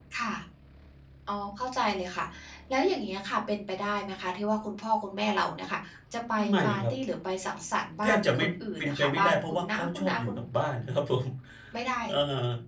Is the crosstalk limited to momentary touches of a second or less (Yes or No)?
No